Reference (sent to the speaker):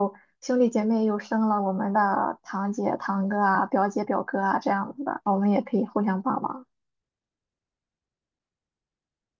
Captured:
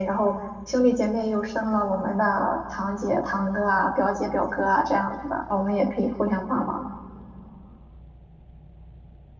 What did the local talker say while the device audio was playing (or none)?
none